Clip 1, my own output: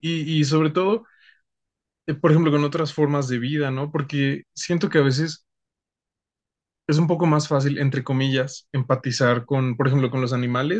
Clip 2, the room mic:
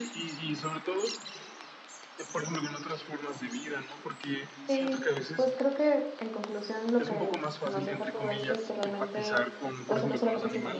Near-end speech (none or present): present